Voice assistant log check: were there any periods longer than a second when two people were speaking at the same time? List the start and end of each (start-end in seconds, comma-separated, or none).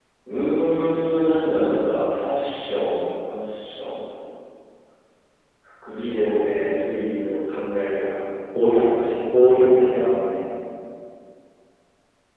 none